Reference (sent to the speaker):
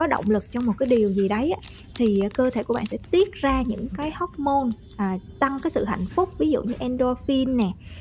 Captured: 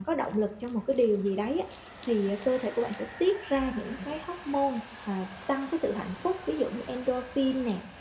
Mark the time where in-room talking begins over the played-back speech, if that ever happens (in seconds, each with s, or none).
none